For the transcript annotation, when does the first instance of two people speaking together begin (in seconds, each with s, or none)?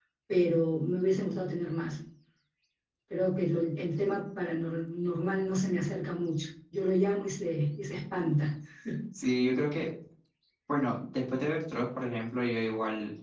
none